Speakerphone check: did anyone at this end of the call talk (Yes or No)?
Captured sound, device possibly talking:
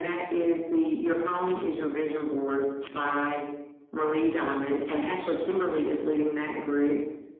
No